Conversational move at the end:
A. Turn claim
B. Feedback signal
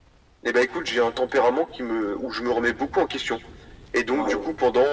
B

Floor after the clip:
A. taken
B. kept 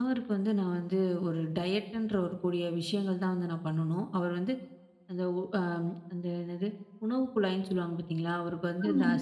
B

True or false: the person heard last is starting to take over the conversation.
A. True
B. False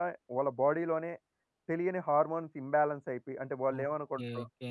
A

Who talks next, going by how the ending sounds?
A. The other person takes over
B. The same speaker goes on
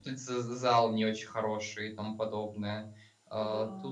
B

